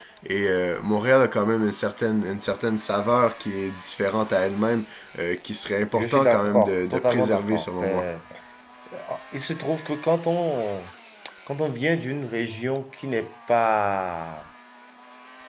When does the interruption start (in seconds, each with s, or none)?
5.9 s